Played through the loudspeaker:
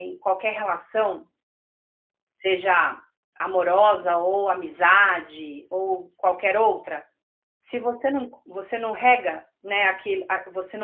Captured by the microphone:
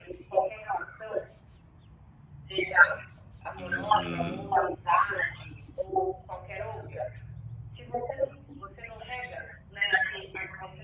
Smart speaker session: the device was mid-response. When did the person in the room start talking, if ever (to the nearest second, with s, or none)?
4 s